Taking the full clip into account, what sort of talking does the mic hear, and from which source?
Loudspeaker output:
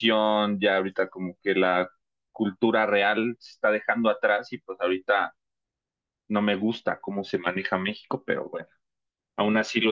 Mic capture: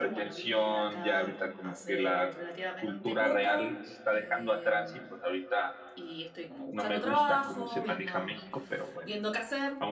both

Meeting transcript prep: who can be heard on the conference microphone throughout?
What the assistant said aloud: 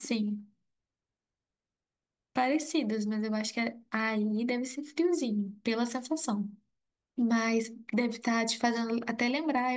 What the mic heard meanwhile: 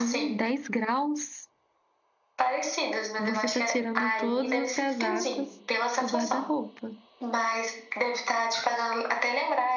both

